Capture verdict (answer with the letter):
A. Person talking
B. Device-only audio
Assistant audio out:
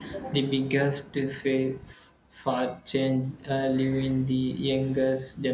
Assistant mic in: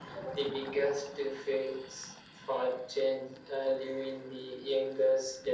B